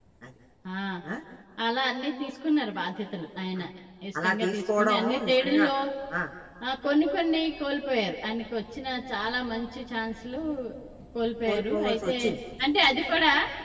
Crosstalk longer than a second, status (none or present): present